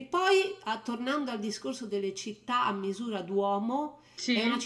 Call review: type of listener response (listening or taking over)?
listening